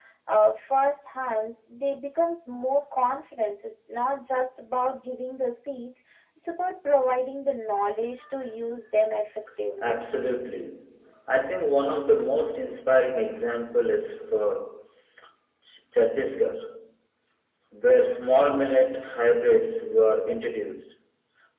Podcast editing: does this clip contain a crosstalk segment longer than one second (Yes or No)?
No